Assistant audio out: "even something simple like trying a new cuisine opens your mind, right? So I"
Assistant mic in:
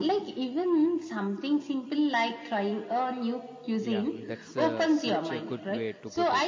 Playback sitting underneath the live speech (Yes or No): No